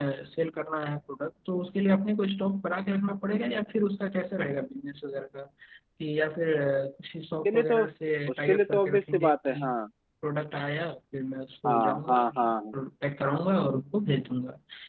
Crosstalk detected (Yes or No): Yes